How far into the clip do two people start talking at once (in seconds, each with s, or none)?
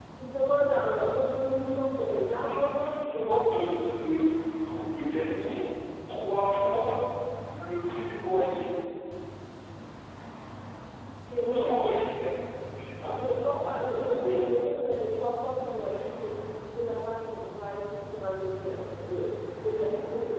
2.5 s